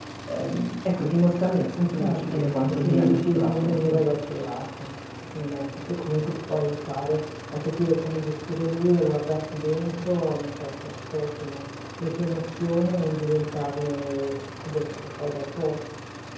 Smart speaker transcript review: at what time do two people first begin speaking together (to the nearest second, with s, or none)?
2 s